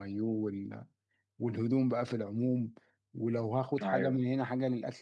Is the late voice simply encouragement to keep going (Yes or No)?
Yes